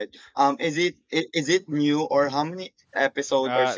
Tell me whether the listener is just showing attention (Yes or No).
No